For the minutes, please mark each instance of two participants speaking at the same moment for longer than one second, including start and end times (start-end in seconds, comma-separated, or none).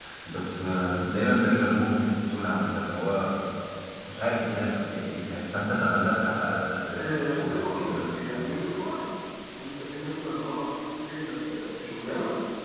7.0-8.3